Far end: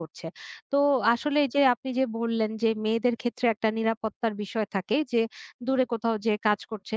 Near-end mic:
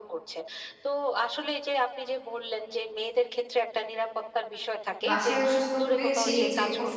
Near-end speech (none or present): present